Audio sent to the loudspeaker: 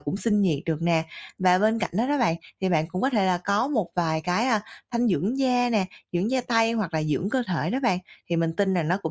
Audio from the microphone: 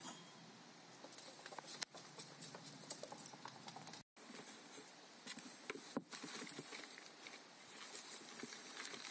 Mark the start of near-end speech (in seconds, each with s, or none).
none